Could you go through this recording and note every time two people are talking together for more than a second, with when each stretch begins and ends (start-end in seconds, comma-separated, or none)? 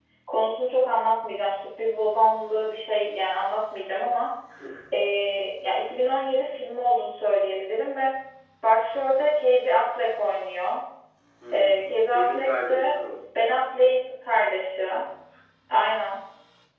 11.5-12.9